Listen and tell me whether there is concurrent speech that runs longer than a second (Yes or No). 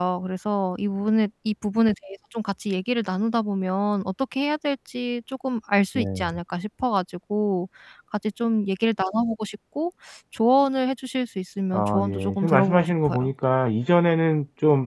Yes